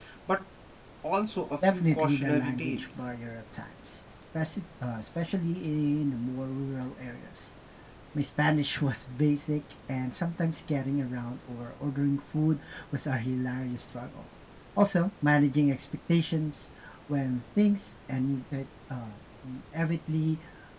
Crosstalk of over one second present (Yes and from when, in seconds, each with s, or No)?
Yes, from 1.7 s